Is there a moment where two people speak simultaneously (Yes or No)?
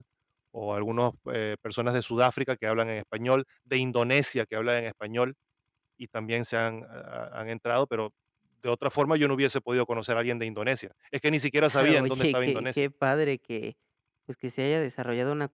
Yes